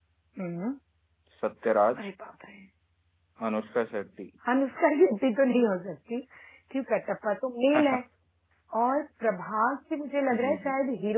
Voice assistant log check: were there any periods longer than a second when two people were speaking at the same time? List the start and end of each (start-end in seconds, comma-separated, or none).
none